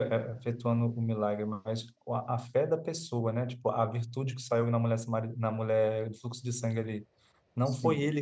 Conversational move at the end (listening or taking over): listening